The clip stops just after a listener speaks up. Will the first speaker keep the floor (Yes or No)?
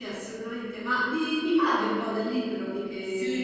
No